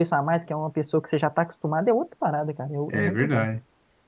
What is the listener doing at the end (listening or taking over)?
taking over